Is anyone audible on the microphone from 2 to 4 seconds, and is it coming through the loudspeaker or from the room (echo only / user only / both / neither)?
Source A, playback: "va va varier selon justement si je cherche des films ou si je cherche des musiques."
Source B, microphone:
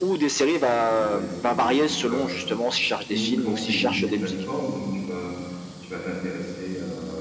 both